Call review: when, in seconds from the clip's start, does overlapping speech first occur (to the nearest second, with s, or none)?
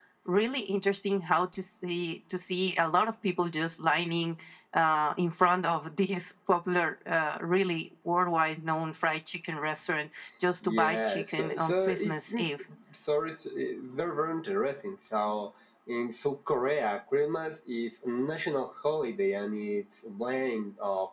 11 s